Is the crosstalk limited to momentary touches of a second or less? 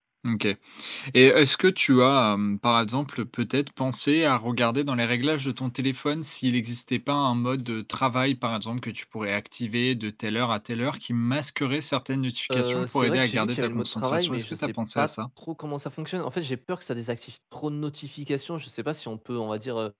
No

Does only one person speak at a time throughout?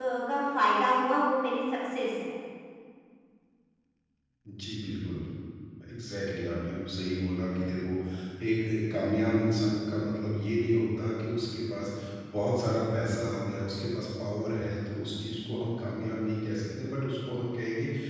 Yes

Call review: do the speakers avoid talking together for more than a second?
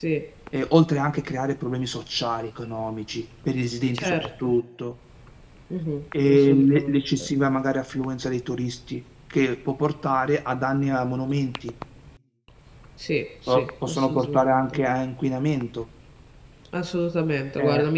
No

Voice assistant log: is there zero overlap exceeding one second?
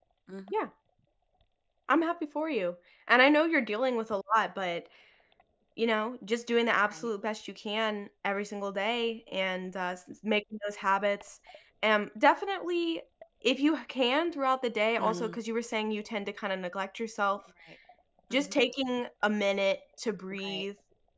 Yes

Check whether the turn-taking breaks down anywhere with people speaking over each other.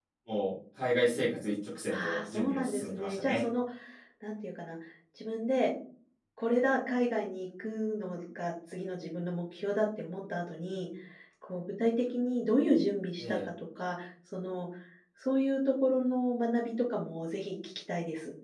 Yes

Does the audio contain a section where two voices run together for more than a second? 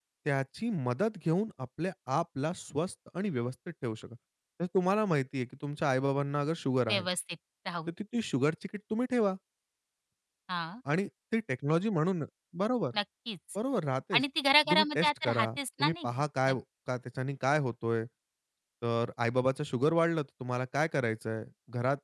Yes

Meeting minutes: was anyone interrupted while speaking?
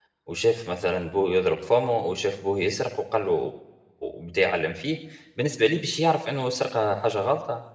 No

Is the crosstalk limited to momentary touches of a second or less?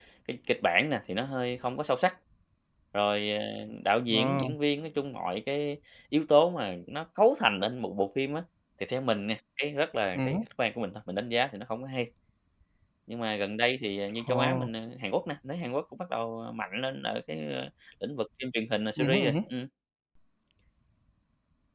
Yes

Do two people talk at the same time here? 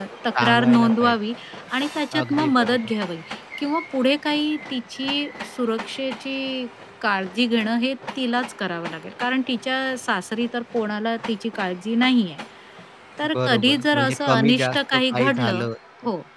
Yes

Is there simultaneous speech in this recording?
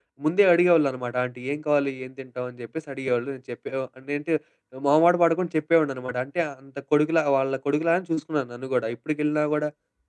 No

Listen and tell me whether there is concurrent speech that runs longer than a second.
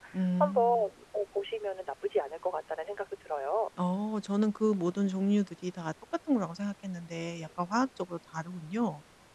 No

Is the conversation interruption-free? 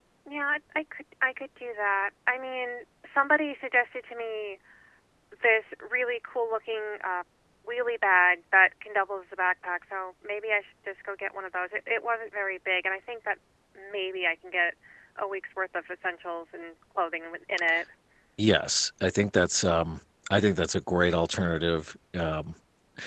Yes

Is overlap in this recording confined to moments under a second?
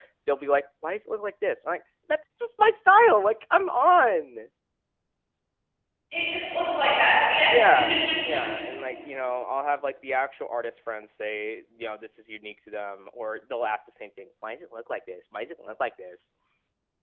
Yes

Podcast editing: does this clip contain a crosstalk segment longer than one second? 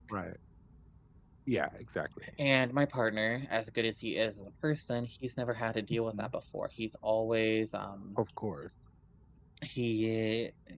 No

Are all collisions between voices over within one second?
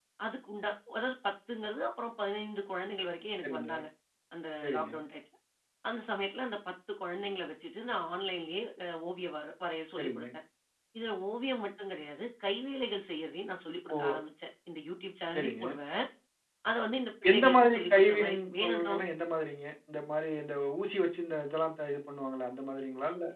No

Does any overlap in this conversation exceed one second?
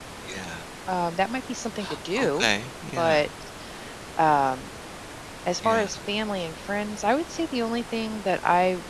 No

